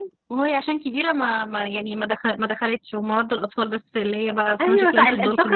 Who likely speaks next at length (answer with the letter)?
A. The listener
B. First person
A